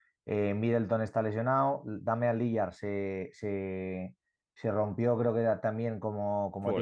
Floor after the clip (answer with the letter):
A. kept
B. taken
B